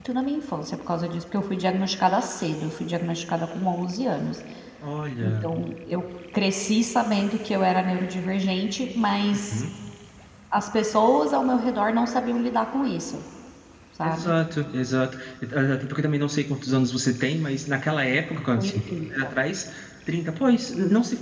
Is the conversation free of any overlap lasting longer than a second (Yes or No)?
Yes